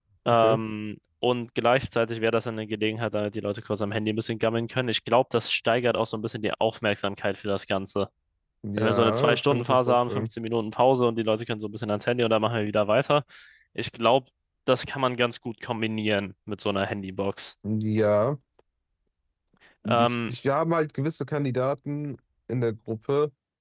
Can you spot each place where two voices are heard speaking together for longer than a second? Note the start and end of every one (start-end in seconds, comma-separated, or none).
8.8-10.2